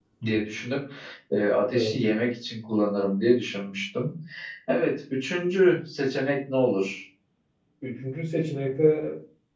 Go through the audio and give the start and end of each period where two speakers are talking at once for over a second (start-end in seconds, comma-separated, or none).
none